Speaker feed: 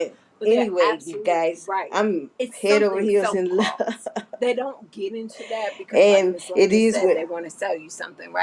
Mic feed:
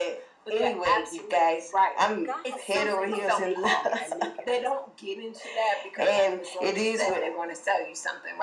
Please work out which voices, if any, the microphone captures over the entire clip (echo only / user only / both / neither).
both